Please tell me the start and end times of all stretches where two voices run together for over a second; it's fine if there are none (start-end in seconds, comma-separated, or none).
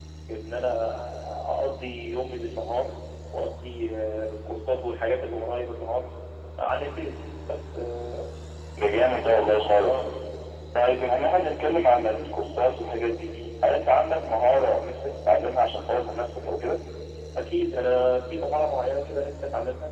none